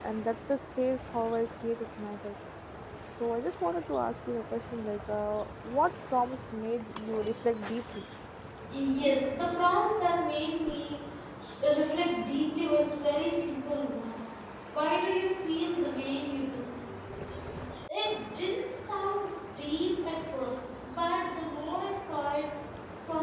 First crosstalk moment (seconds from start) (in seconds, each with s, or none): none